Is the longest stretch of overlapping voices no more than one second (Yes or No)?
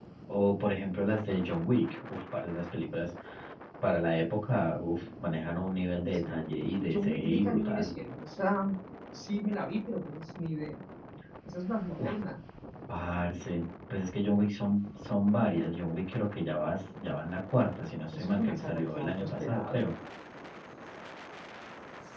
No